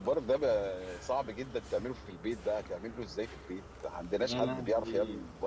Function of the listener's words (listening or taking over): taking over